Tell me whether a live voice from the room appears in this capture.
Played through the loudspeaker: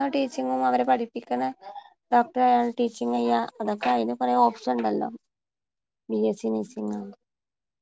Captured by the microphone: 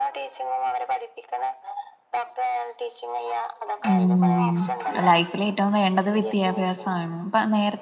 Yes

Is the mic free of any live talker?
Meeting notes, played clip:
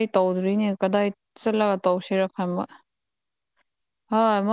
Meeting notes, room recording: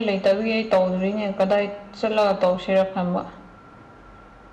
Yes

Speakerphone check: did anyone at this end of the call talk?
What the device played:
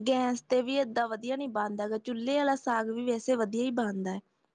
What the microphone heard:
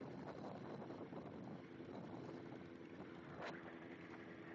No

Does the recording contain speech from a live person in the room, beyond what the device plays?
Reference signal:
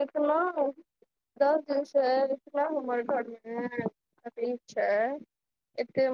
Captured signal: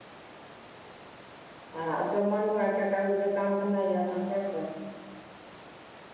Yes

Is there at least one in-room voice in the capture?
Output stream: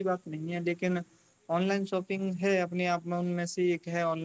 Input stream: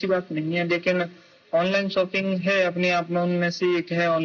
No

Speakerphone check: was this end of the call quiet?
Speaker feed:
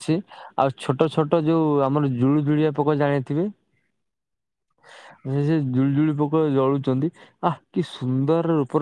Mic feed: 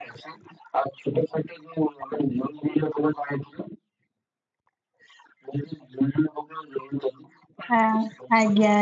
No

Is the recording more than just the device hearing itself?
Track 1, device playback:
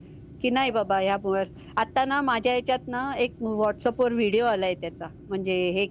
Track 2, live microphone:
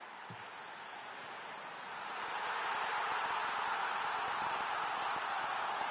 No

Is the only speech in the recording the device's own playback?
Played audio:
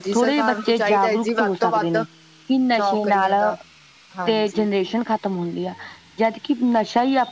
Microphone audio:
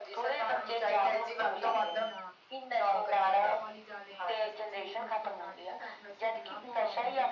No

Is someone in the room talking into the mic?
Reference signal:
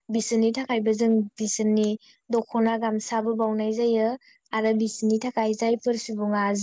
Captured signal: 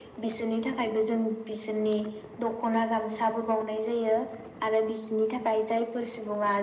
No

